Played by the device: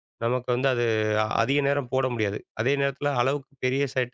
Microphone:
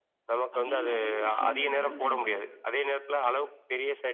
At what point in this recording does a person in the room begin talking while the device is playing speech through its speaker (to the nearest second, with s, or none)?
1 s